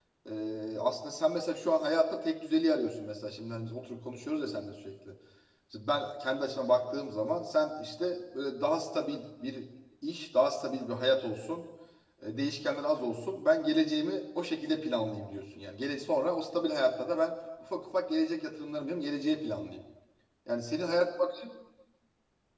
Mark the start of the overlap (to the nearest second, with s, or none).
none